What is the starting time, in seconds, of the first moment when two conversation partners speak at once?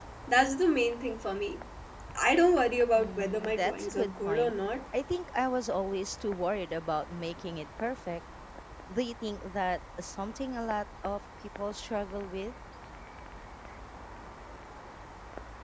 3 s

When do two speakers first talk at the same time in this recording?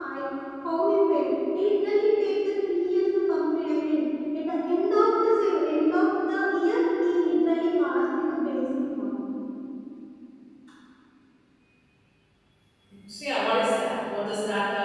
none

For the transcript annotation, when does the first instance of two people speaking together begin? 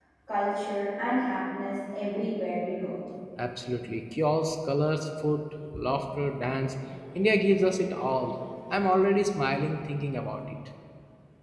none

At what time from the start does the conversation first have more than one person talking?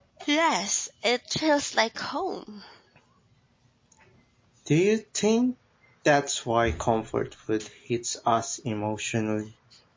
none

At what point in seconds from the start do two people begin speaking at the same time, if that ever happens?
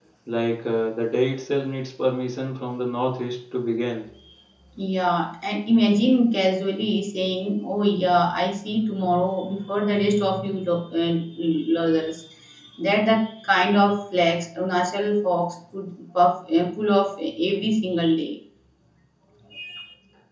none

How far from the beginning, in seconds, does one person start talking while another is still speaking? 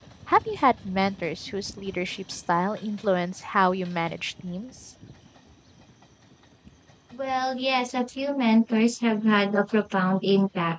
none

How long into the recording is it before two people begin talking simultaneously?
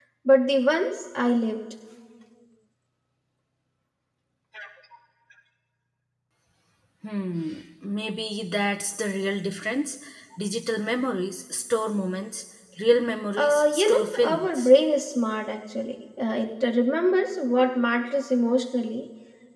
13 s

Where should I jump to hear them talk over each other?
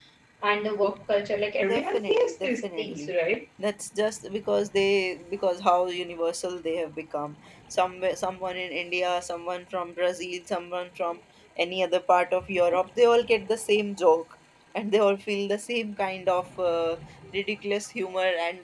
2 s

